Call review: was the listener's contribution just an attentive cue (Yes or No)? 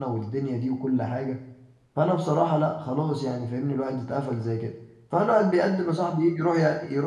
Yes